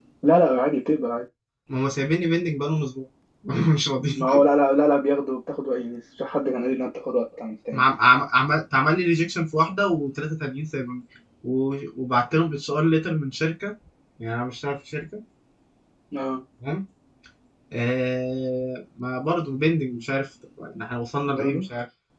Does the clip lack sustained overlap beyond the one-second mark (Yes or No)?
Yes